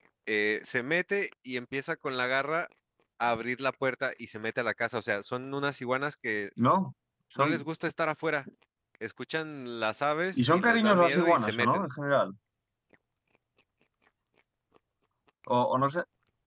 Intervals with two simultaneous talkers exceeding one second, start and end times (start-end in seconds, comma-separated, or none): 10.3-11.8